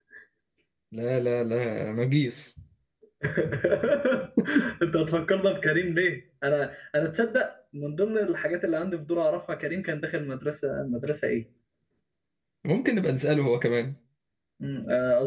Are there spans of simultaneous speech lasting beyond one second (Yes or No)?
No